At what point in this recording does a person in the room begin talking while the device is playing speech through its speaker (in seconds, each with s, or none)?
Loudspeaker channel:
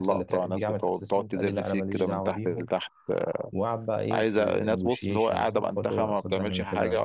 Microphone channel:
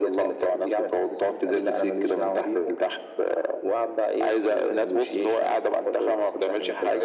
none